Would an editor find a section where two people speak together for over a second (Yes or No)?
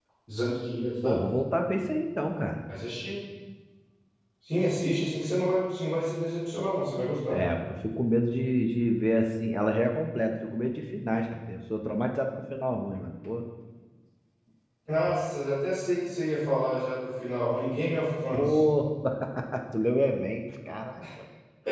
No